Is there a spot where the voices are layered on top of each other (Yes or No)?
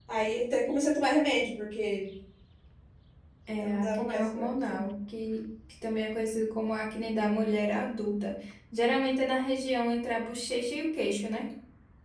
Yes